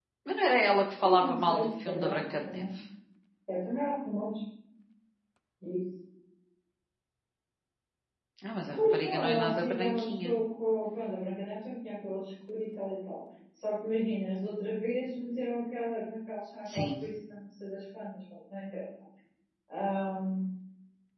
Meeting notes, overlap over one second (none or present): present